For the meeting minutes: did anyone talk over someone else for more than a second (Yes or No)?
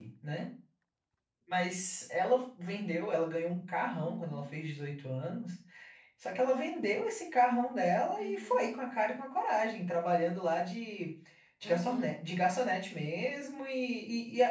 No